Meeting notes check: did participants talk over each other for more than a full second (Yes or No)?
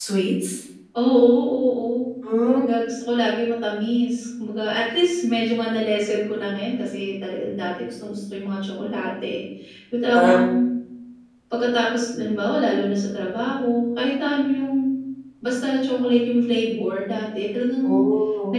No